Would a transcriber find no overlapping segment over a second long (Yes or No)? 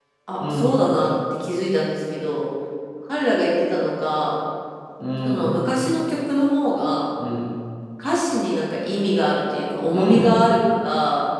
Yes